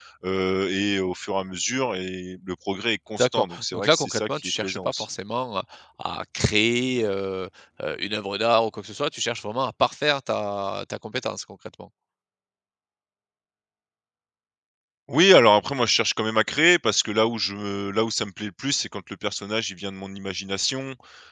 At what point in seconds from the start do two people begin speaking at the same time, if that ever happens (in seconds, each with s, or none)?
3.2 s